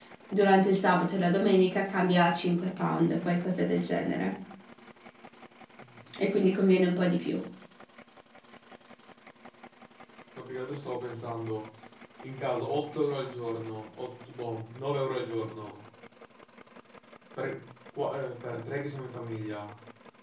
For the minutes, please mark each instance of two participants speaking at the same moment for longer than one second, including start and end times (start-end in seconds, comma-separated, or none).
none